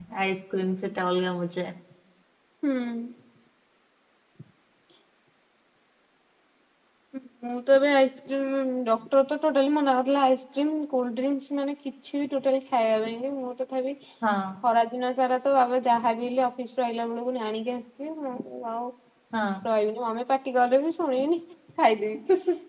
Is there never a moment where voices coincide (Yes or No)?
Yes